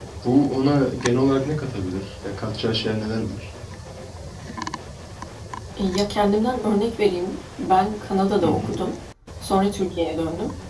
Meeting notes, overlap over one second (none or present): none